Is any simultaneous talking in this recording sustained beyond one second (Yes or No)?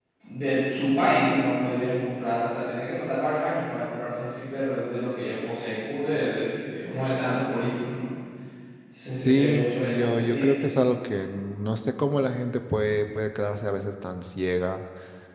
Yes